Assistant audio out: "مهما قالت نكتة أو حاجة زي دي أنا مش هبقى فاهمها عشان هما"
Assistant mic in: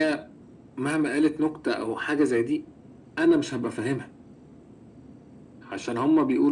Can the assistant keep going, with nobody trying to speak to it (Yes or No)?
Yes